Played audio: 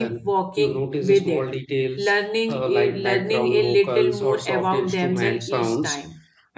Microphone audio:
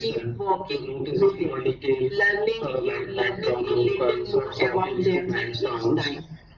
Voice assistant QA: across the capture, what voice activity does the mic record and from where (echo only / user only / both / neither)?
echo only